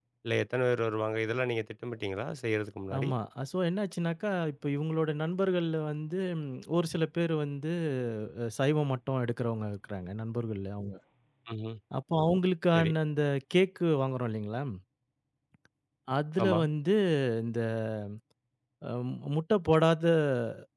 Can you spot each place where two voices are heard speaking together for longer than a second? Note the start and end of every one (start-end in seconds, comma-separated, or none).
none